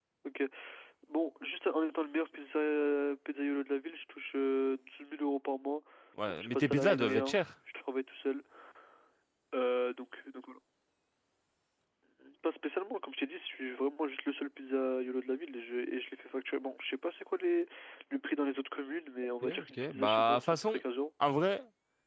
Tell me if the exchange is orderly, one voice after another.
No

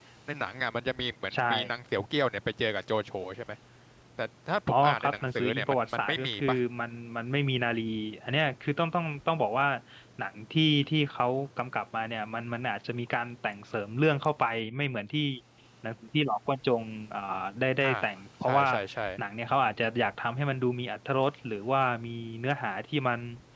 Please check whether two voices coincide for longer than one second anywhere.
Yes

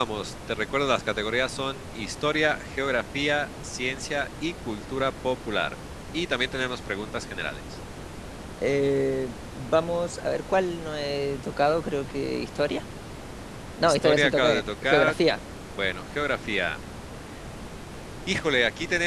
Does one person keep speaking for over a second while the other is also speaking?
Yes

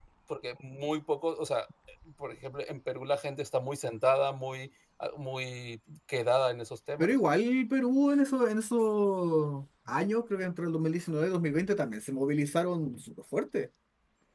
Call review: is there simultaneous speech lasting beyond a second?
No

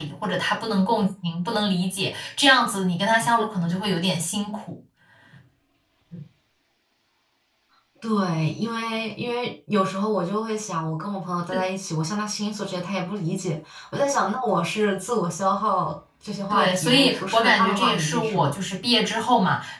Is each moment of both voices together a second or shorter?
No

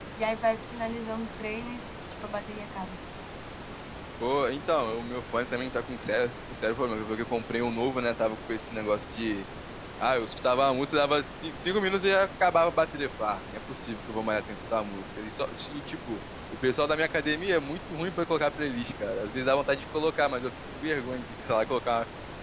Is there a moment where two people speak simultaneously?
No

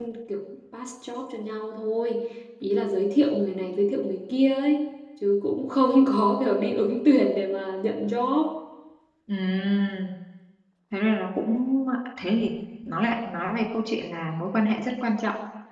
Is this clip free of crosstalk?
Yes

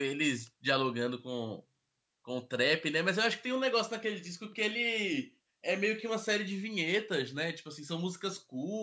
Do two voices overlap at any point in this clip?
No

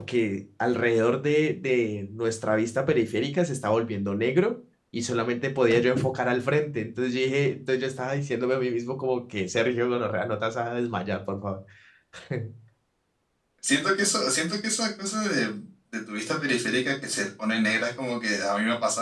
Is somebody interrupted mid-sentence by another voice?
No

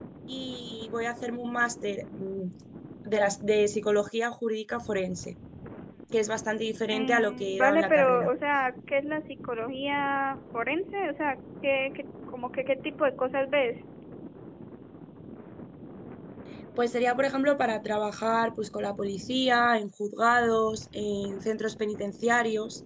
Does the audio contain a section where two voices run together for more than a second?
Yes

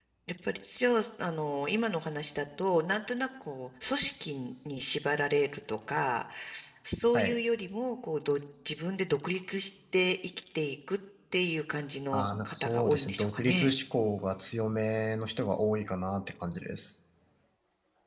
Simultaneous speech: Yes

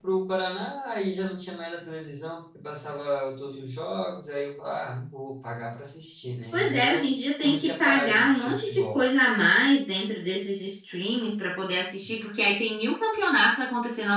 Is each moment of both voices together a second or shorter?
No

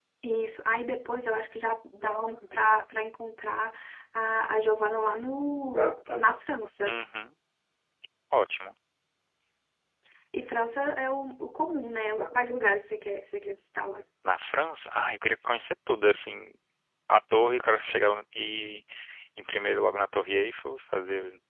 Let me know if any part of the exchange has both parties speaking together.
No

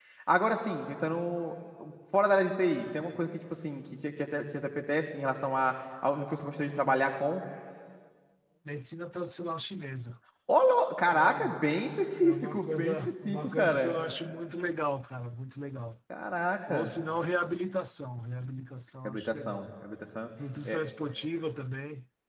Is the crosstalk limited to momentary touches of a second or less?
No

